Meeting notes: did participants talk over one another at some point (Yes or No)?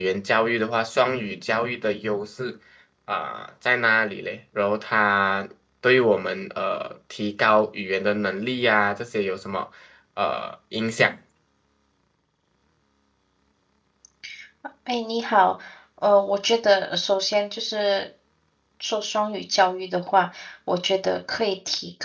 No